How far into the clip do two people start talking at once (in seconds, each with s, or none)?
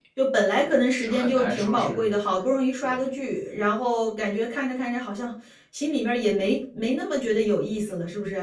0.6 s